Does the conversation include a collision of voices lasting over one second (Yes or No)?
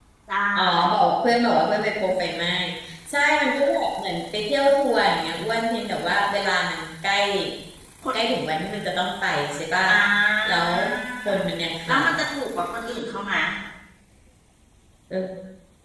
No